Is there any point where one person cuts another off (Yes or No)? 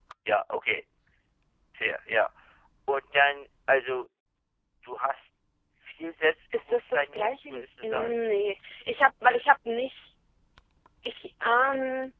Yes